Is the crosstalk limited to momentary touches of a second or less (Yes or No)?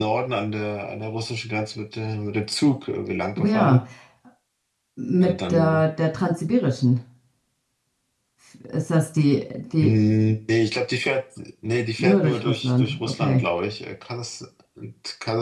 No